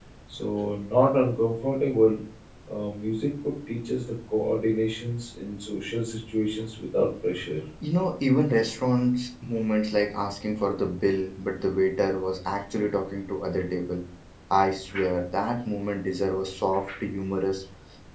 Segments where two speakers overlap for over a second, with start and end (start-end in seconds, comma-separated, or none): none